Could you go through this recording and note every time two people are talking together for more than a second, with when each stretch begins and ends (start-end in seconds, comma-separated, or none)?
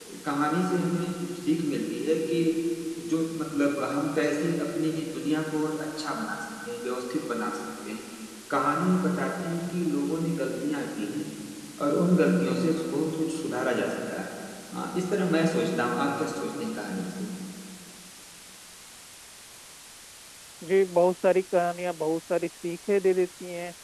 none